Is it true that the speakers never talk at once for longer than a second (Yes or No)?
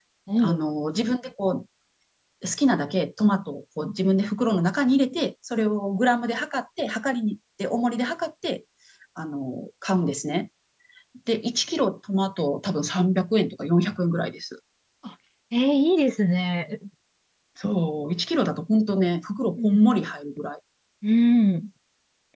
Yes